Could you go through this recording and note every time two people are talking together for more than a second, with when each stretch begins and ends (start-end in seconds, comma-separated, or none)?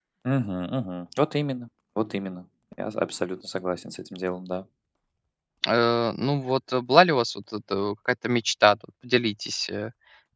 none